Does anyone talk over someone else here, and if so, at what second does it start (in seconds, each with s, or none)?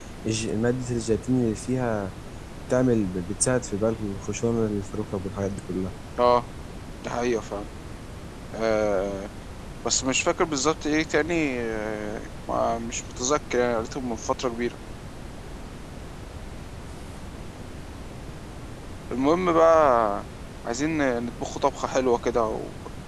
none